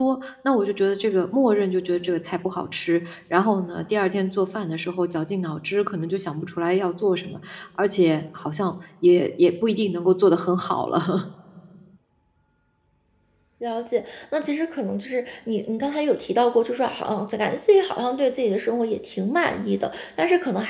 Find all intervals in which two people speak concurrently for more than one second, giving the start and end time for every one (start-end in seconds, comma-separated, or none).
none